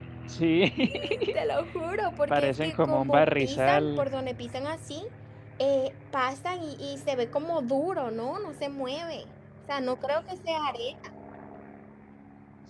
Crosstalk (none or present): present